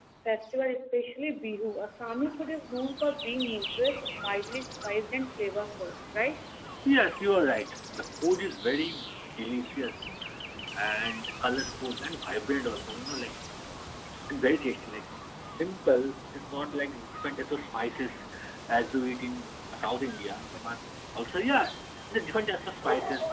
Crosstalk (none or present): none